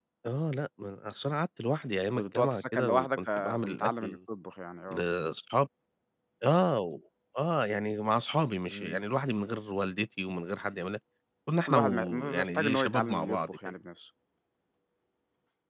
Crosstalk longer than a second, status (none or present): present